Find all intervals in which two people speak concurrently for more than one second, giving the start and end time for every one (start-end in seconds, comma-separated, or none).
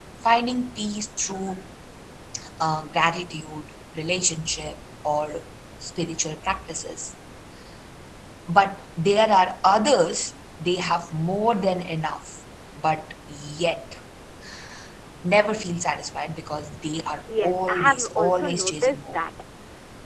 17.4-19.2